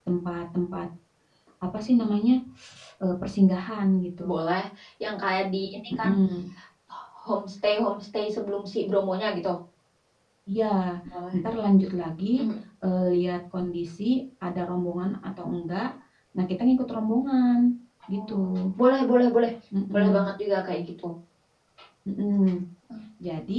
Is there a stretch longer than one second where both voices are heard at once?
No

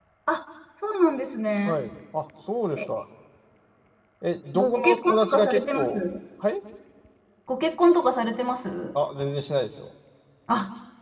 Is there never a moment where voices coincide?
No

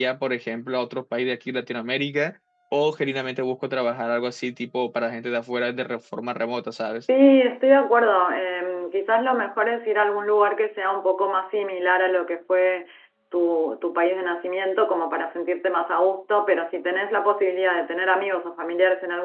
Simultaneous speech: No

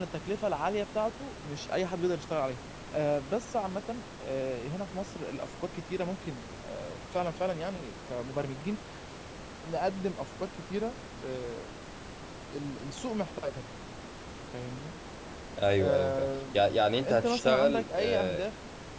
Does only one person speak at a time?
No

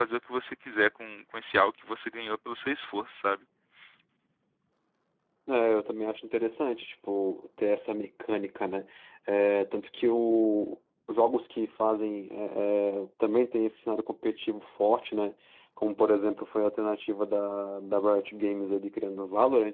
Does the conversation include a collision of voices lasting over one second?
No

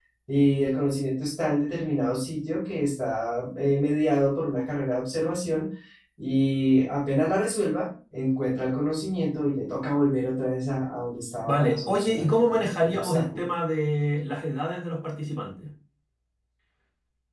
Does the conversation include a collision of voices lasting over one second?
Yes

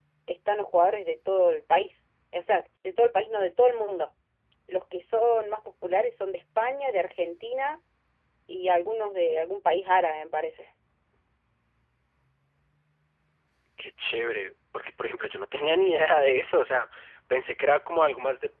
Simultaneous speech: No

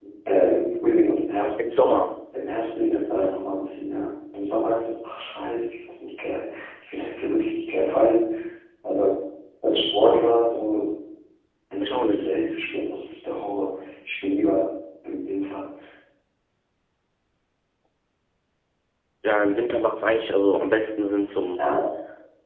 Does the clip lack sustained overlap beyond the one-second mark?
Yes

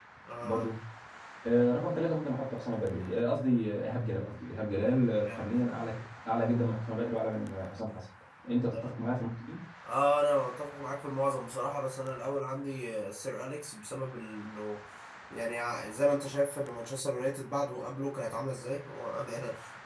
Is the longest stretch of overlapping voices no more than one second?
Yes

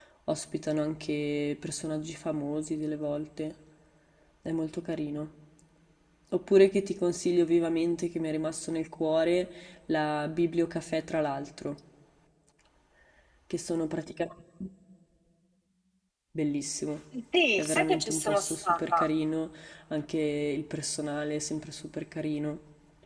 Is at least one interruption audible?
Yes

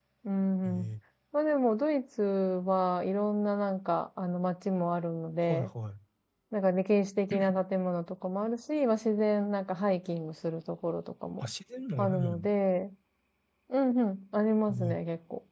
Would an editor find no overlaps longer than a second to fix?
Yes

